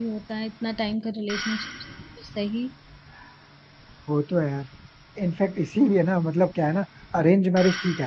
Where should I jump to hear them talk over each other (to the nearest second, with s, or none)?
none